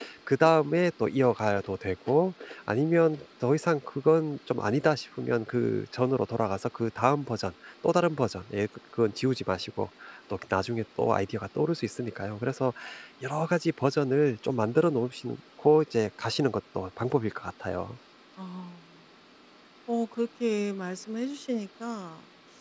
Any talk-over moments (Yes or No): No